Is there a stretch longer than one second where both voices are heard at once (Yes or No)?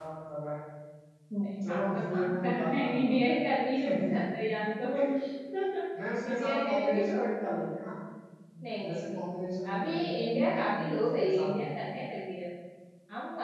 Yes